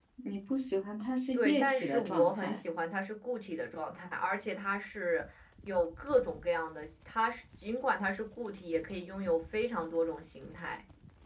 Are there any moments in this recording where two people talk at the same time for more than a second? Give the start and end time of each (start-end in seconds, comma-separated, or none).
1.3-2.6